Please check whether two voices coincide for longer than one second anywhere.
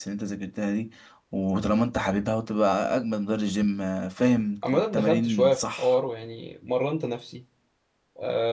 Yes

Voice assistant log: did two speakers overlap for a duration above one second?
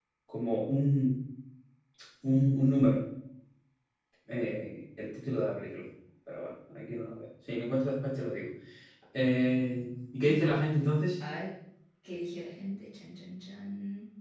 No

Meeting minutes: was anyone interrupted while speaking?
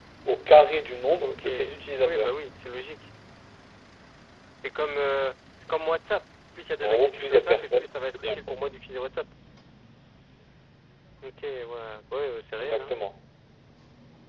Yes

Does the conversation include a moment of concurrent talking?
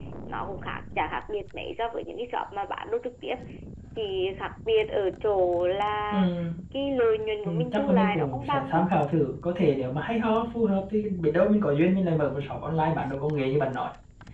Yes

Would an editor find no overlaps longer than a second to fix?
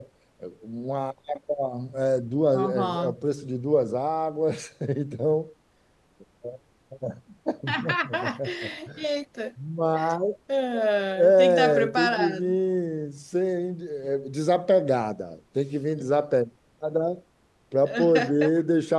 No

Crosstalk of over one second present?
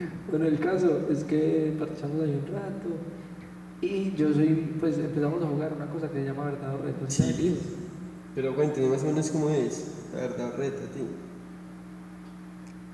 No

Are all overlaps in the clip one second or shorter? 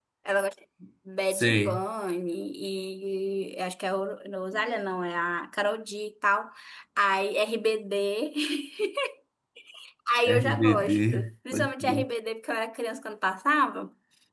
No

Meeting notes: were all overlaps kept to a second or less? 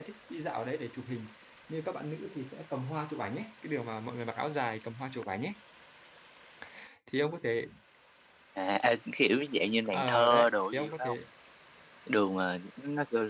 No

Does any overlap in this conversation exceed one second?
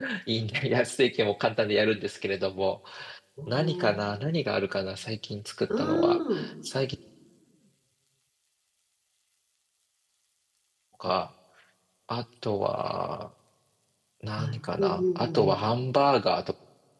Yes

